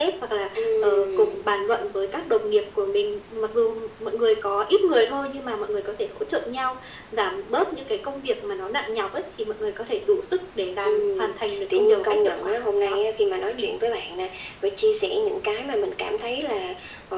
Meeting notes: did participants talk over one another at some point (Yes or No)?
Yes